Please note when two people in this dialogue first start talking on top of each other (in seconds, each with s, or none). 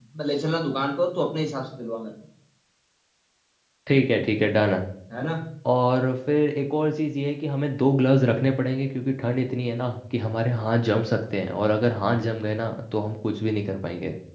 none